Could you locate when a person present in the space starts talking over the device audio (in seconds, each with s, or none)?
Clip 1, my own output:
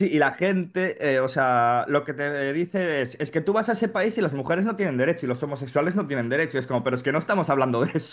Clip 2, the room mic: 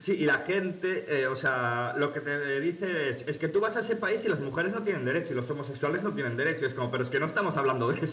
none